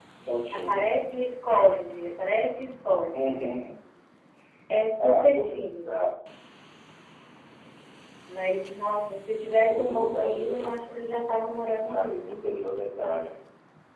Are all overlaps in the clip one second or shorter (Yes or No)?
No